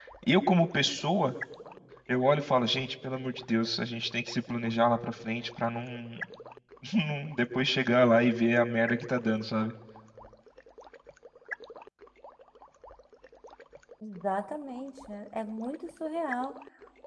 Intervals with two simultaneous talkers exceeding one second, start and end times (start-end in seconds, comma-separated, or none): none